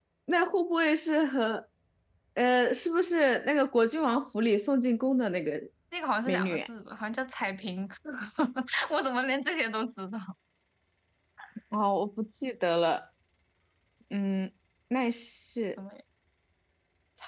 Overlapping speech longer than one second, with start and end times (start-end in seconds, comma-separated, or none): none